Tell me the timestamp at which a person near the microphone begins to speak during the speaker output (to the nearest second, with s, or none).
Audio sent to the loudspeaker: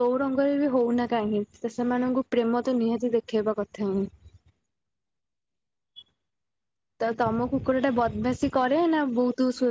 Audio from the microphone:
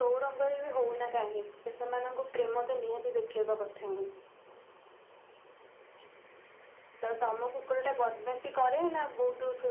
none